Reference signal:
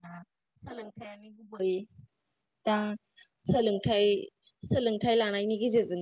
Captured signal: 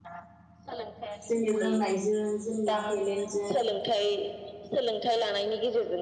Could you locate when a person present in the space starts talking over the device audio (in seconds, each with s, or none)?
1.2 s